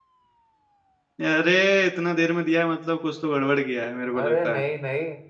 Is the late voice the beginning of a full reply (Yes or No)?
Yes